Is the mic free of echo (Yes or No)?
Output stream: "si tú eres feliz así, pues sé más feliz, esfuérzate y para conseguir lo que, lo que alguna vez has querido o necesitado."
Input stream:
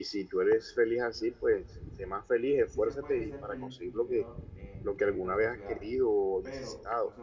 No